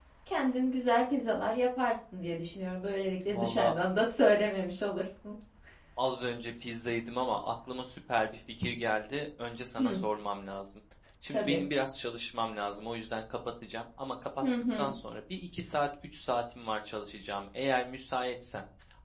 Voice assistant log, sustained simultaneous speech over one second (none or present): none